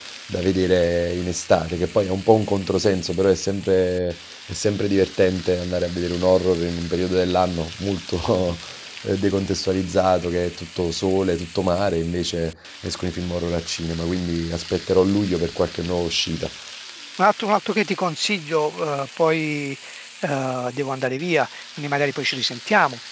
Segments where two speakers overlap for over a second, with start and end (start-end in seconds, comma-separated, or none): none